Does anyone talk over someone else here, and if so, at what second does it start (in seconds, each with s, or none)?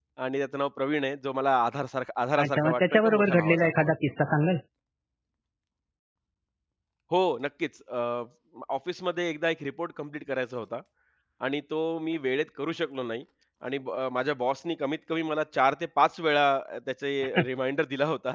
2.4 s